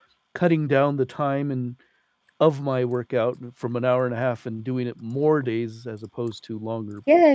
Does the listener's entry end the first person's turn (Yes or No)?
Yes